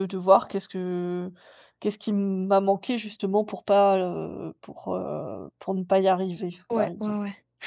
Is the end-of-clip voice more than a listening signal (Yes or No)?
Yes